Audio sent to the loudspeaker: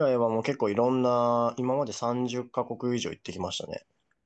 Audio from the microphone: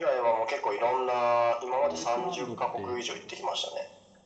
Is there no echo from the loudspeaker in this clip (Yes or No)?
No